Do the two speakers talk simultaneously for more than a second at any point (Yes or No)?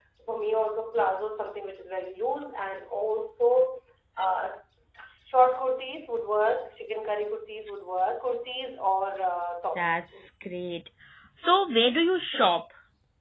No